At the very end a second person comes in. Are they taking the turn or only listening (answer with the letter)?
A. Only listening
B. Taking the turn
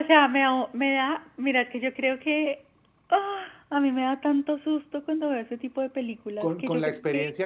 B